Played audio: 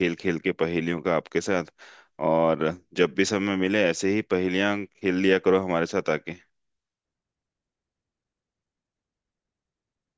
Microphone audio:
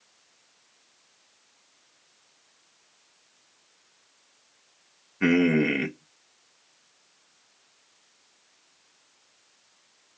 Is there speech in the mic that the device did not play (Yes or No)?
Yes